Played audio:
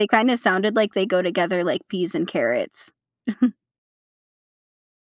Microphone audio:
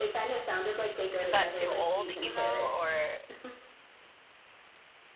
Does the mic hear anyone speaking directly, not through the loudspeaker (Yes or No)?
Yes